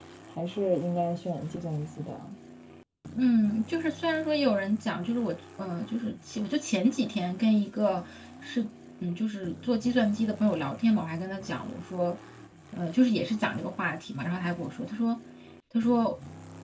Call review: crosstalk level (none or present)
none